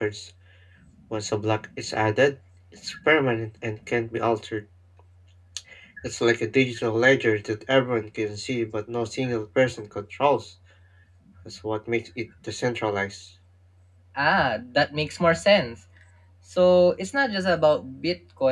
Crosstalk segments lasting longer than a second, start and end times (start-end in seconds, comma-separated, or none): none